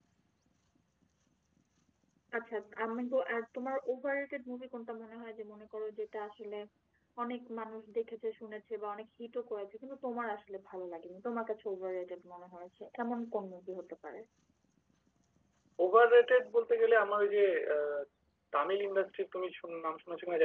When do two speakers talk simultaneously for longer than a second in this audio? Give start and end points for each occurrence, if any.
none

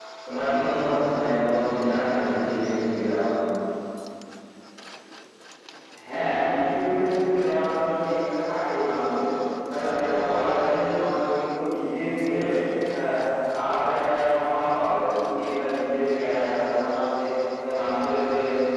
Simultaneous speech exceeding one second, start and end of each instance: none

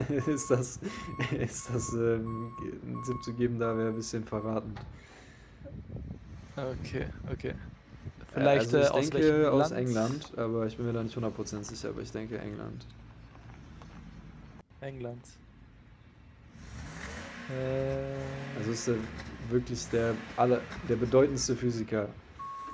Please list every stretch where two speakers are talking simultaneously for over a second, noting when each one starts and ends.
8.4-9.9

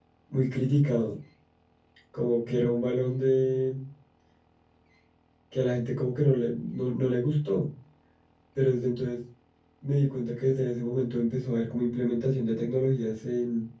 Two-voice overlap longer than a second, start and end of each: none

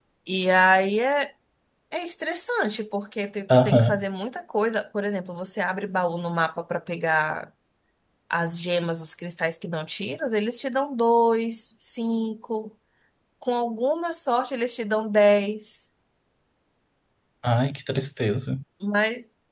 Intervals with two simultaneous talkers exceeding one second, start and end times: none

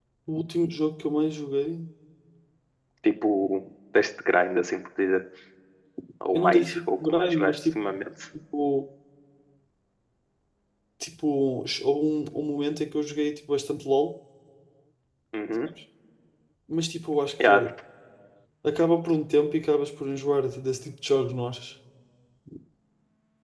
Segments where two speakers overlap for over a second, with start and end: 6.3-7.5

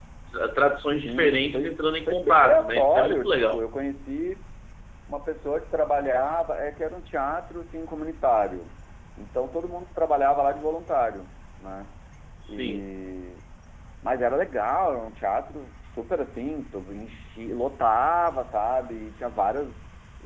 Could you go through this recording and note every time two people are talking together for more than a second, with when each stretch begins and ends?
1.0-3.6

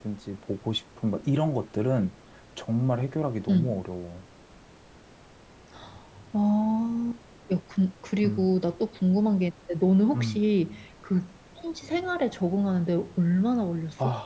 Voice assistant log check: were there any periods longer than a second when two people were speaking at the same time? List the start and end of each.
none

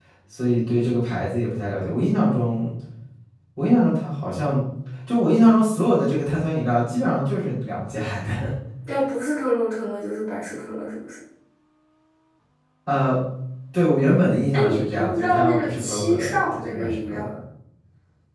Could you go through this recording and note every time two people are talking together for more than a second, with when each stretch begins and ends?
14.5-17.2

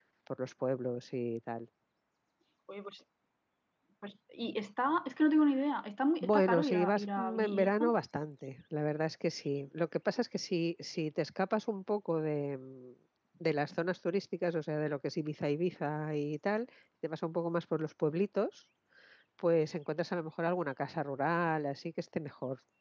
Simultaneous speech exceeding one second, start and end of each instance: 6.2-7.8

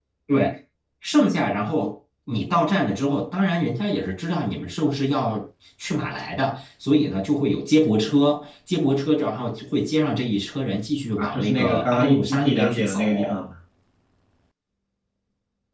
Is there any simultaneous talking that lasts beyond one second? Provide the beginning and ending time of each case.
11.2-13.3

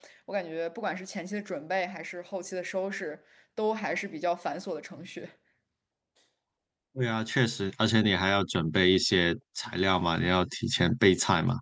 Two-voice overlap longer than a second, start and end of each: none

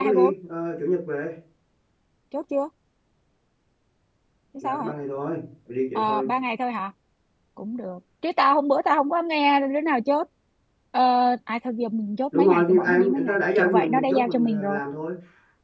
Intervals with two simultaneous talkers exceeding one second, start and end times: 12.3-14.8

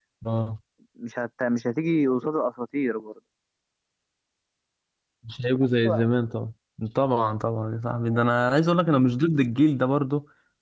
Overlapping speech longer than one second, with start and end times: none

